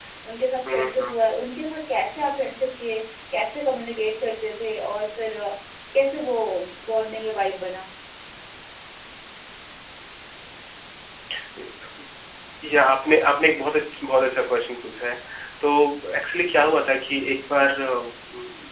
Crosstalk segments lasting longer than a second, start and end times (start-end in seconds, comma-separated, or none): none